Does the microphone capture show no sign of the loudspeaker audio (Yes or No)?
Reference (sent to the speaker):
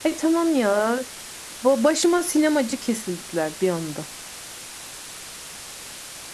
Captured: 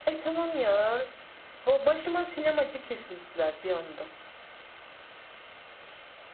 No